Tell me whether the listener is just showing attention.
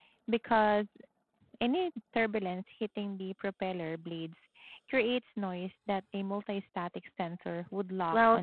No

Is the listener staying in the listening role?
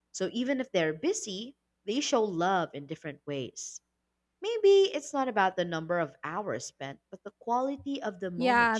No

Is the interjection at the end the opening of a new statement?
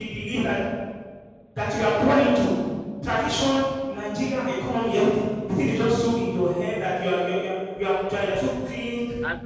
Yes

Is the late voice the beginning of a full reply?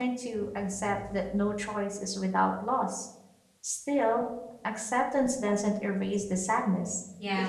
Yes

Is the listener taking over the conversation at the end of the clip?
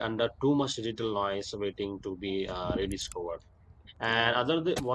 No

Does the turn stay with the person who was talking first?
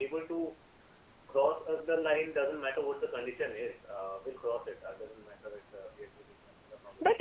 No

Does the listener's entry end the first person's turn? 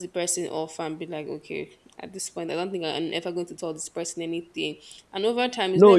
Yes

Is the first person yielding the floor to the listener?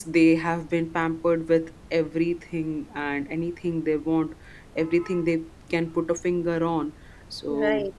No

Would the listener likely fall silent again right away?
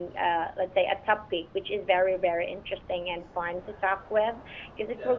Yes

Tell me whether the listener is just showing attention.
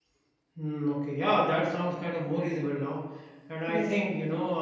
Yes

